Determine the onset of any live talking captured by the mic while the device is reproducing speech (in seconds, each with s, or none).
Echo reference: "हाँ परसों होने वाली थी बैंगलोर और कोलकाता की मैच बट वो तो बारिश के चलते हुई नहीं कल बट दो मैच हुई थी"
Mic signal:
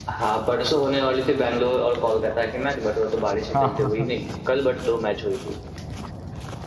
3.5 s